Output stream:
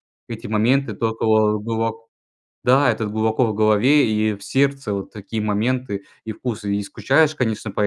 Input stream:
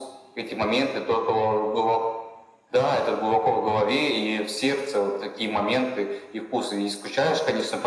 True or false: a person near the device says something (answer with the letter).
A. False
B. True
A